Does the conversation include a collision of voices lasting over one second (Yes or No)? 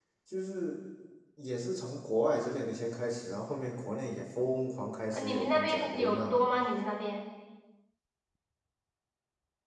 Yes